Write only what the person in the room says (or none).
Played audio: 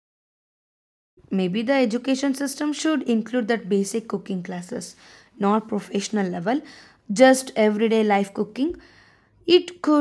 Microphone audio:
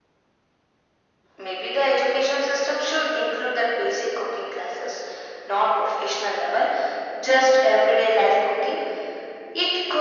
none